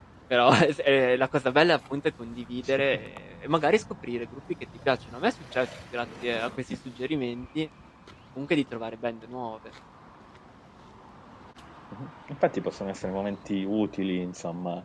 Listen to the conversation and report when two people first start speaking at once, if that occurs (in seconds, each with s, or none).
none